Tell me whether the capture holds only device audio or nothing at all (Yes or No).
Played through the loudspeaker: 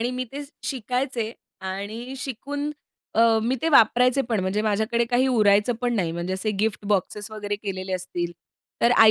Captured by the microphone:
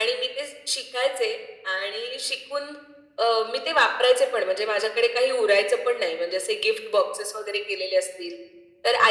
Yes